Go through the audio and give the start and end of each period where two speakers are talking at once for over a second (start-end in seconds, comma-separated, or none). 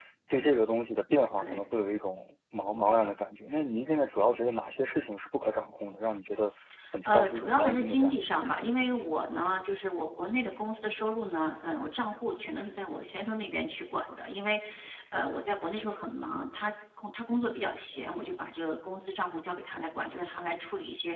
7.0-8.7